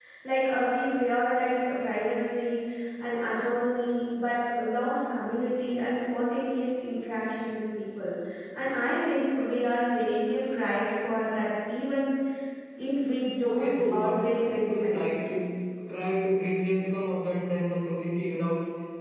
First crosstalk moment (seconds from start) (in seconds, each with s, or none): 13.4 s